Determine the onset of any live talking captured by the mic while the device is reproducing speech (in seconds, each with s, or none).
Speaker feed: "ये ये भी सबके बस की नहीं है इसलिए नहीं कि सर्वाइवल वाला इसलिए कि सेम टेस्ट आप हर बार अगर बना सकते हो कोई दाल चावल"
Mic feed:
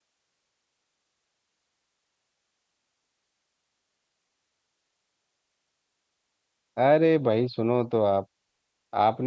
6.8 s